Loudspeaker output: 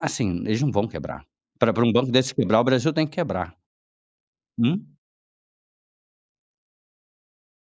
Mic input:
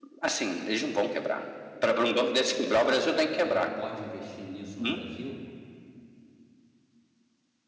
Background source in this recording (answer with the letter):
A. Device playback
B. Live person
B